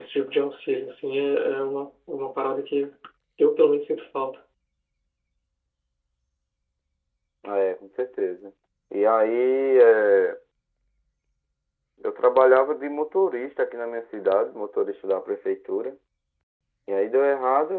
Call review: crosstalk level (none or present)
none